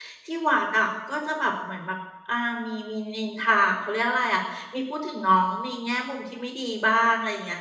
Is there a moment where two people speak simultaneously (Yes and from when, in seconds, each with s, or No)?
No